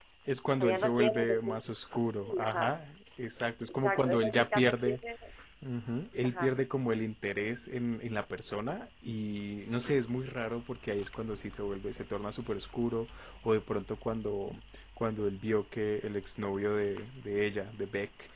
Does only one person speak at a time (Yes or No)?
No